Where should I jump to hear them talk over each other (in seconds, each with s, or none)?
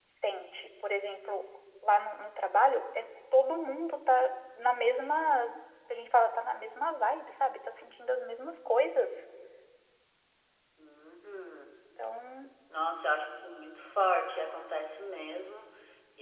none